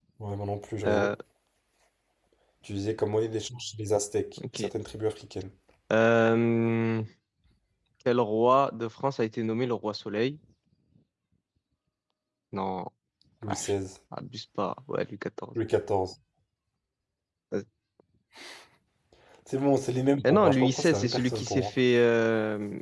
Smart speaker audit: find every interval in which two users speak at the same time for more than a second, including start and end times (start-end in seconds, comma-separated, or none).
20.2-21.7